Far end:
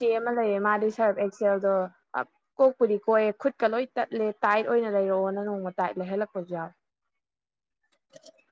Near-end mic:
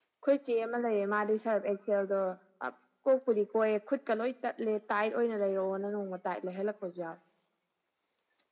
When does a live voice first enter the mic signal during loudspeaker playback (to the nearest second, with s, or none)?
none